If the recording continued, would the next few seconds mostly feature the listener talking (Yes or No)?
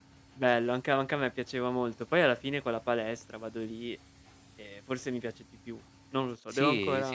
Yes